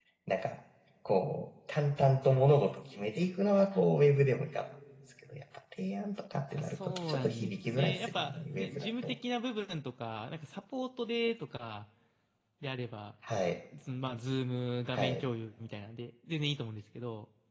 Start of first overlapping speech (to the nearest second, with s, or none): 7 s